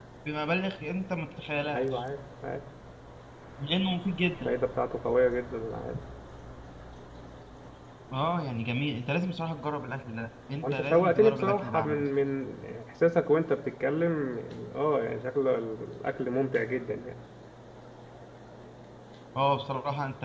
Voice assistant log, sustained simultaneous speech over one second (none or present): present